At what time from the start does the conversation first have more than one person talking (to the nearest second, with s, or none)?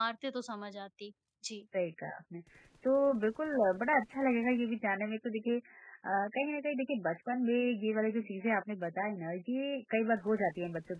none